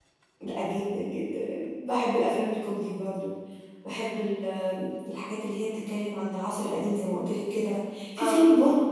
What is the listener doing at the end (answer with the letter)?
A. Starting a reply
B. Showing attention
B